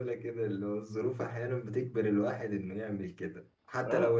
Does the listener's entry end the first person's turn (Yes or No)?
No